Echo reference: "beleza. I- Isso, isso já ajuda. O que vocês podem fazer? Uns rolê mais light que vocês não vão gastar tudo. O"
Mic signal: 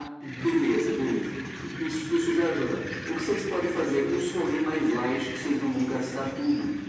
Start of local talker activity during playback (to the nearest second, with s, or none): none